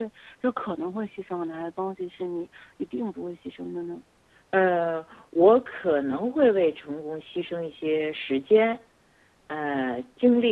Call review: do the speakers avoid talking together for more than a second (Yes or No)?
Yes